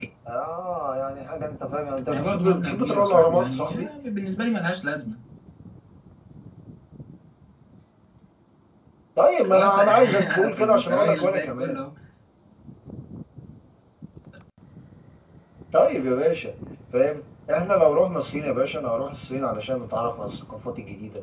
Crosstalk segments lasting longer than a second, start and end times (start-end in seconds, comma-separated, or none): 2.0-3.9, 9.5-11.8